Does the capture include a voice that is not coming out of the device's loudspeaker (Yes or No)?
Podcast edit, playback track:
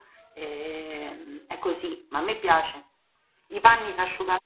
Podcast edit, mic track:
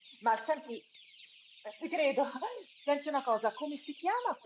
Yes